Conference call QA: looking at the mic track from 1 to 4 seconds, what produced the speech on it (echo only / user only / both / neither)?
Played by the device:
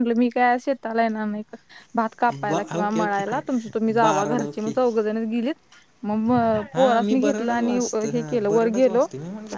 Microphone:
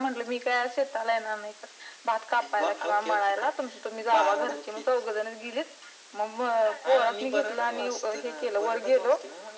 echo only